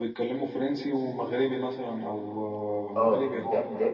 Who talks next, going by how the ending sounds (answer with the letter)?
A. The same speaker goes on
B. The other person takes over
B